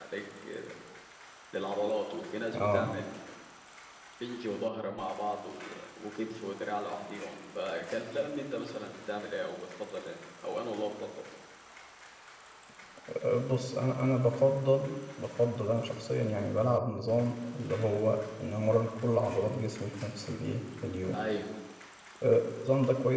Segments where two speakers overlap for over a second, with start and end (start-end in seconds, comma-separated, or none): none